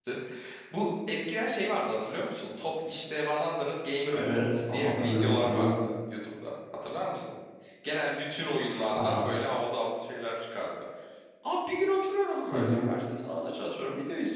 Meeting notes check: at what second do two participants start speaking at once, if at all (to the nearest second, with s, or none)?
4 s